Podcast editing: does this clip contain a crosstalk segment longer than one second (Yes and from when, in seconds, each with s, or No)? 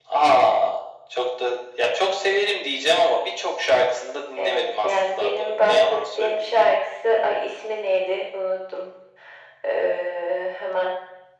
Yes, from 4.4 s